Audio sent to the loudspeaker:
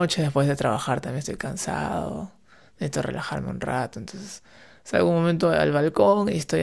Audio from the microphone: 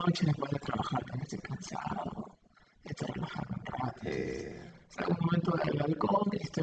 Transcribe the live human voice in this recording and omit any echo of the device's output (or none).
Eh,